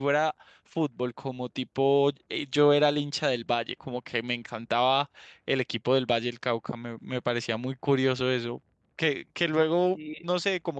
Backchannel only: Yes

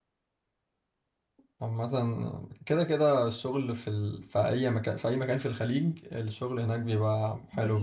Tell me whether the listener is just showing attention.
No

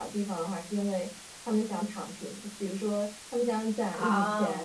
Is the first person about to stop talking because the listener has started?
No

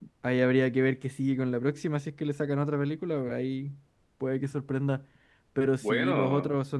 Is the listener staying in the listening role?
Yes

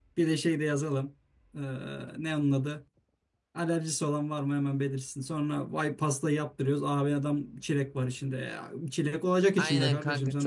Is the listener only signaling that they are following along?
No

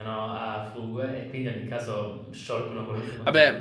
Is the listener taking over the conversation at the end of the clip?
Yes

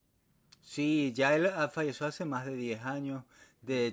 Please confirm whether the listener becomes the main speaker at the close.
No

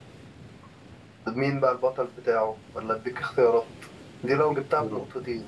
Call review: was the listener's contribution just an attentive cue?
Yes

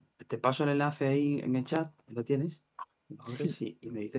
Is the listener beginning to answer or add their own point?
No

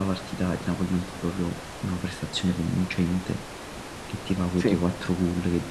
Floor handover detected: No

